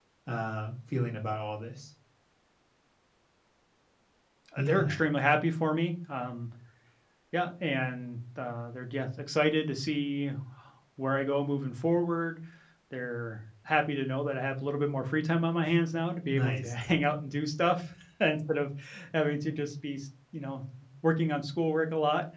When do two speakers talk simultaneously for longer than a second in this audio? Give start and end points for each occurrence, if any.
none

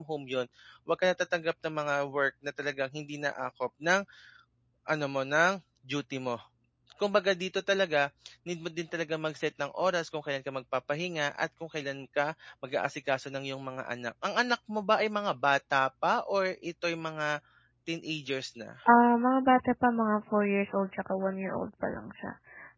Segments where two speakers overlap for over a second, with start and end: none

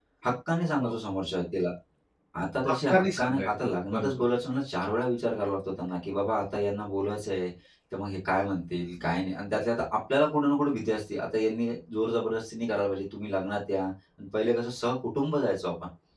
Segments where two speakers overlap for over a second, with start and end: 2.9-4.1

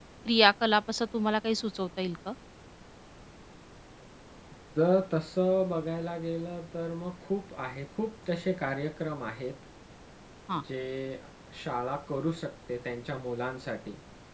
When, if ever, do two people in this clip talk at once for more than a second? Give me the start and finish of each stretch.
none

